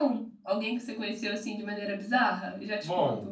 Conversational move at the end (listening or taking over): taking over